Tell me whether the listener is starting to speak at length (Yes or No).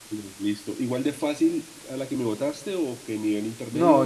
Yes